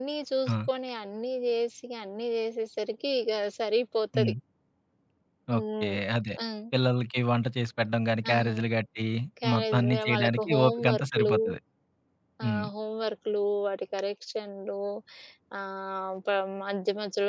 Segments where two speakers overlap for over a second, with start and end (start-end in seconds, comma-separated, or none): 9.5-11.3